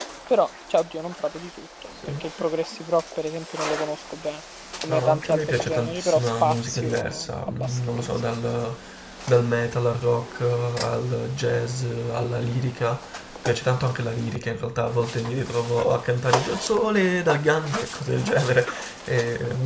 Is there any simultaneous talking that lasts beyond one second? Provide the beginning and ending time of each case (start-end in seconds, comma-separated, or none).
4.9-8.1